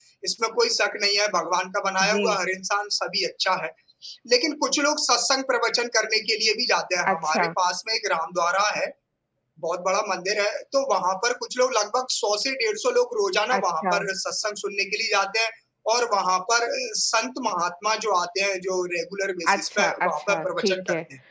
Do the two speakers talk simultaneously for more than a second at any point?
Yes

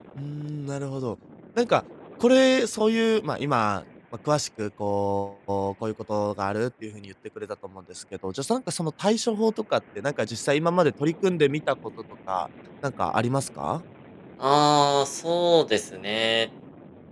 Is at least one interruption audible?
No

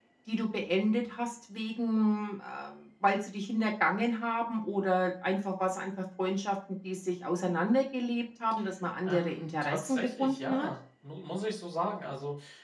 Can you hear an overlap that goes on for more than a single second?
Yes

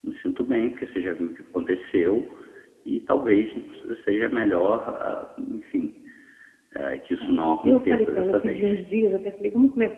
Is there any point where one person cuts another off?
Yes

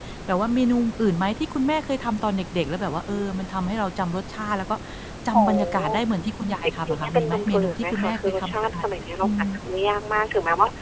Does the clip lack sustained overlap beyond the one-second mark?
No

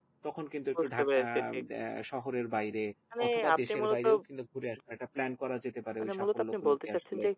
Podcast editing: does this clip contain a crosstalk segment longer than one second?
Yes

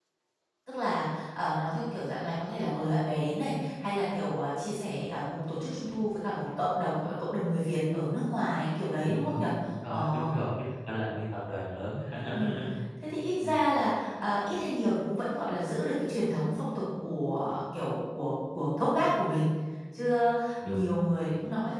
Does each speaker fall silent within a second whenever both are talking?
Yes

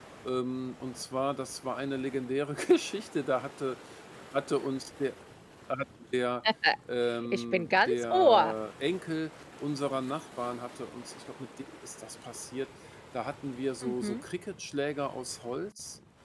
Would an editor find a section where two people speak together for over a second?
Yes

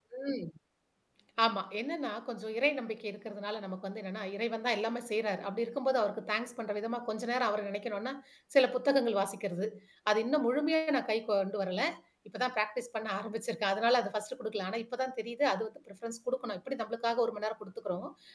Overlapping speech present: No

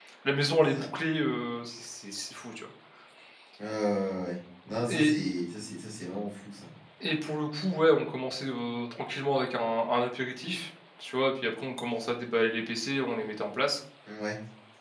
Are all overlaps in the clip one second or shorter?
Yes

